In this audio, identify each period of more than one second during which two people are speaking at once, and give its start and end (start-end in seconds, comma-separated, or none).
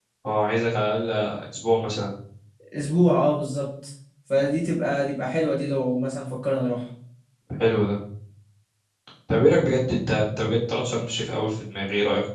none